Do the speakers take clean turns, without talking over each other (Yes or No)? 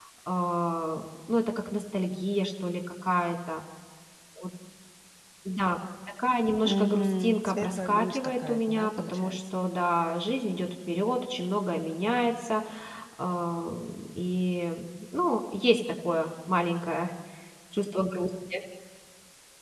No